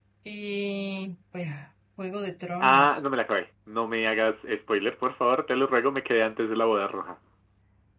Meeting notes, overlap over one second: none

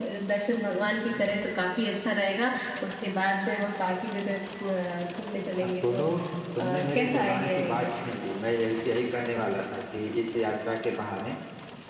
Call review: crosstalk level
present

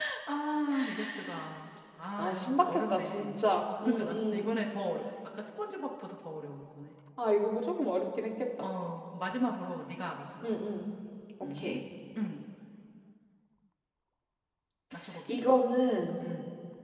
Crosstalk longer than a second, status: present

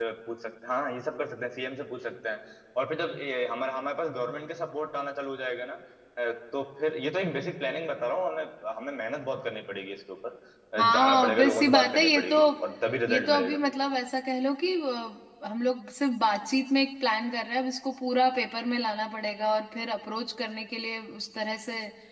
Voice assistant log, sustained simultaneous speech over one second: present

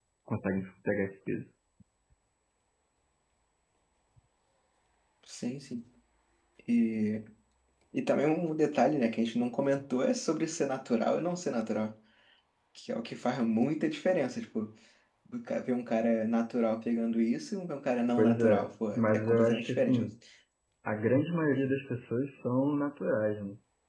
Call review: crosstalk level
present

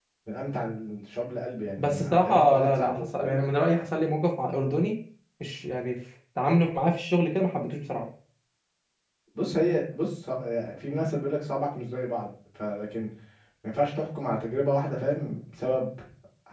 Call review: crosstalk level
present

